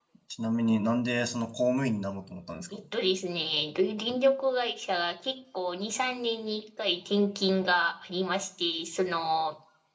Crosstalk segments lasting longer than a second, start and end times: none

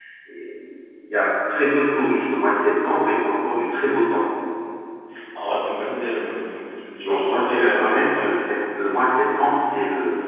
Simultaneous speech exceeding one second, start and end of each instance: 7.0-8.3

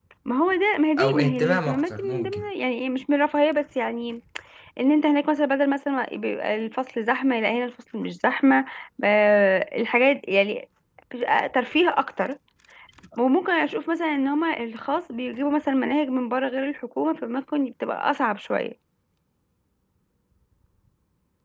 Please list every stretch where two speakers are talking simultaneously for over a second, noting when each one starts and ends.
1.0-2.5

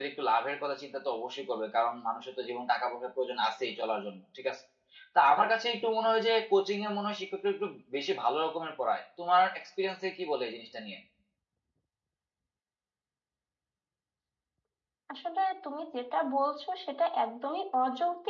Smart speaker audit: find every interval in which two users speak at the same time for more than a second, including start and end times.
none

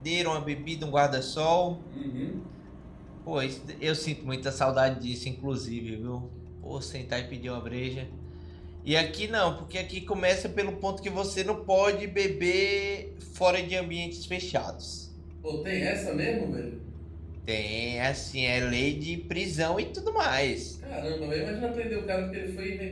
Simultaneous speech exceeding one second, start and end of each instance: none

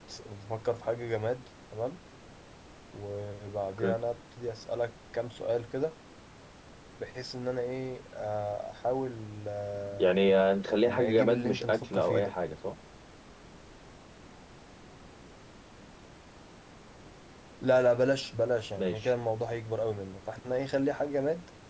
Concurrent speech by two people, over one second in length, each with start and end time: 10.8-12.3

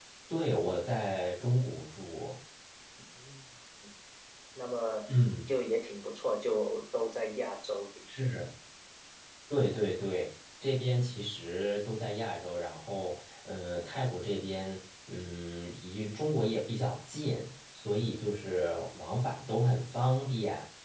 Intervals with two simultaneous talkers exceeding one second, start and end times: none

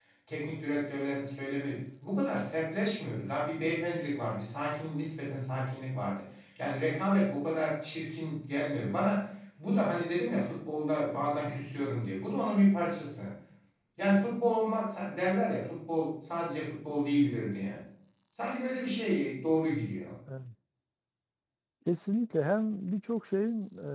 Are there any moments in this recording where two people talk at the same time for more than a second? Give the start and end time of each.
none

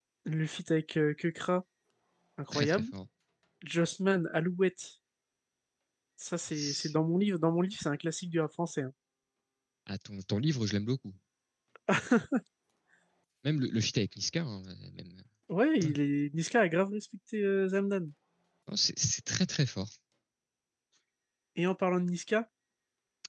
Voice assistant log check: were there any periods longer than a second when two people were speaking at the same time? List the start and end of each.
none

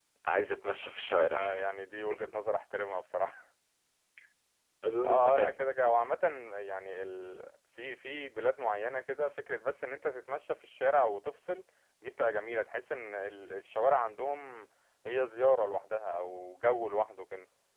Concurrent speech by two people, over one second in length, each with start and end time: none

